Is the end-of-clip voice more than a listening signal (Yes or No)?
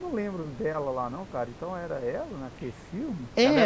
No